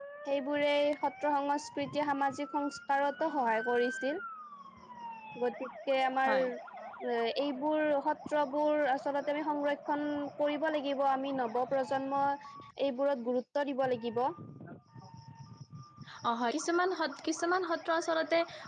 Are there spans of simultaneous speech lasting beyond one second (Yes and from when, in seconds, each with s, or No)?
No